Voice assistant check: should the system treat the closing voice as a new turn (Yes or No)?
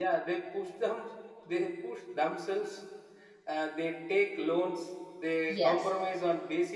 No